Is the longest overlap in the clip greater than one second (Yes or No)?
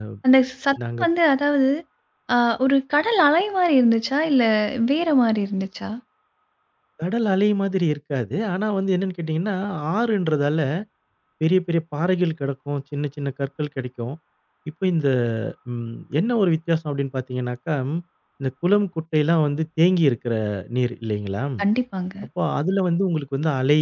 No